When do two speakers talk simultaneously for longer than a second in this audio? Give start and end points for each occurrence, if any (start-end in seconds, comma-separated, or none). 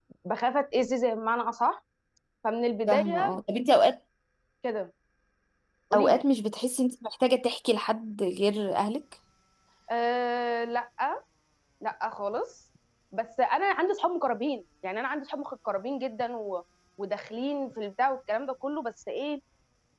none